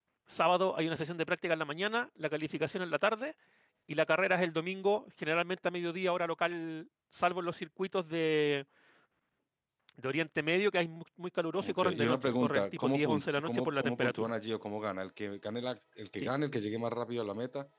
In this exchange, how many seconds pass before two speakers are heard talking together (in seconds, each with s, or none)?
11.6 s